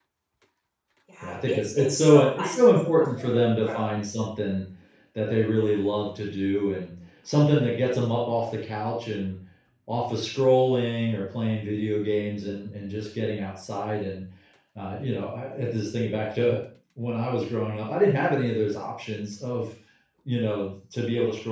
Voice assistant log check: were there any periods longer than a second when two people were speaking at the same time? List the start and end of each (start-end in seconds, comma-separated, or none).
1.2-3.8